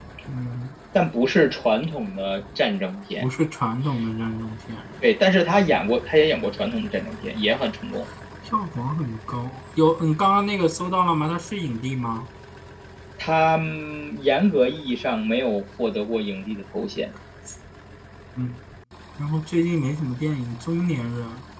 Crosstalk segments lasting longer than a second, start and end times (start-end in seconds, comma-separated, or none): none